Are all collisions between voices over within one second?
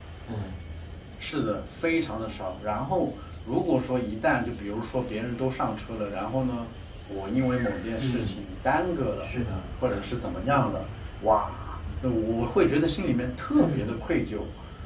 Yes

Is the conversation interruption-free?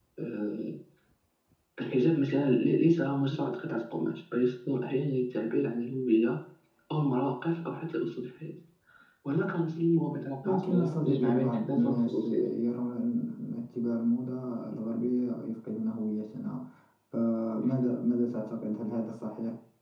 No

